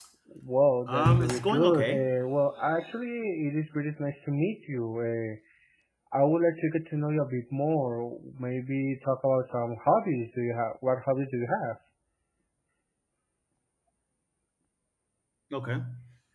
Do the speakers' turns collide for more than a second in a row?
Yes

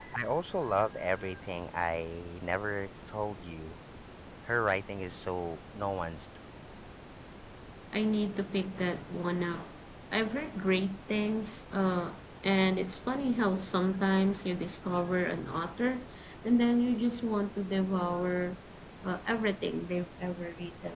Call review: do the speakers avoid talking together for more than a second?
Yes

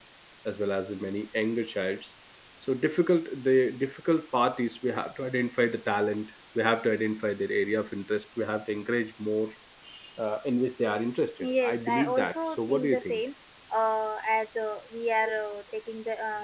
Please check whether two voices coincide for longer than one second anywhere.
Yes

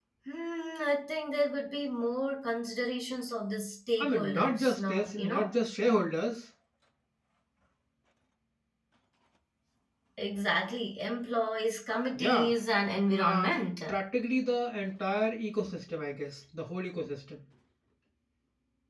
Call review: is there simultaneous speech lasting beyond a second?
Yes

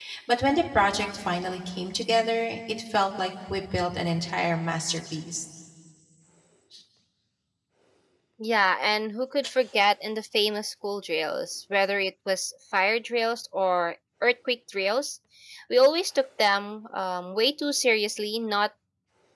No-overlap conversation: Yes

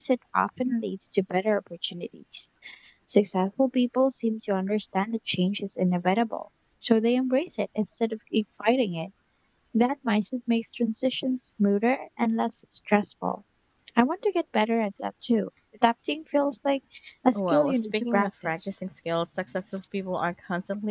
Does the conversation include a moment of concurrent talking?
Yes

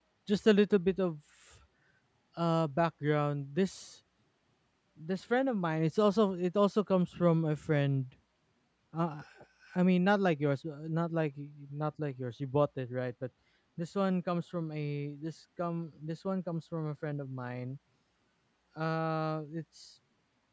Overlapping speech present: No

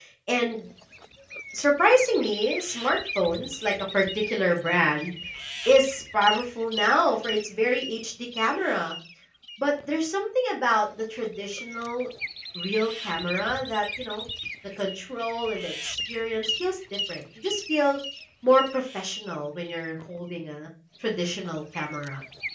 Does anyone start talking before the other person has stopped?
No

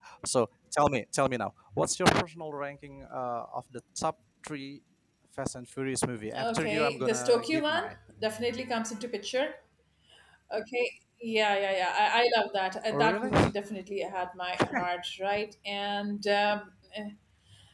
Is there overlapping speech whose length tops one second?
Yes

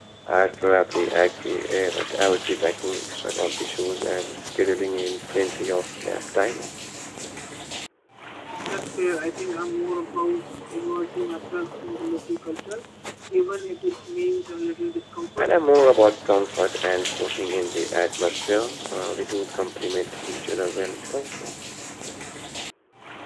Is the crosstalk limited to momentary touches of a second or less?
Yes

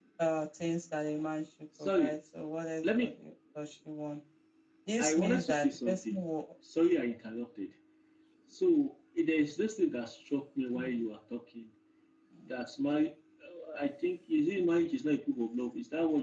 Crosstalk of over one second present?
Yes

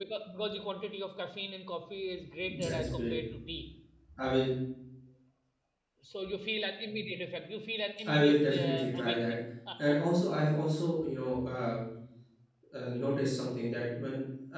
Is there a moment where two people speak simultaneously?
Yes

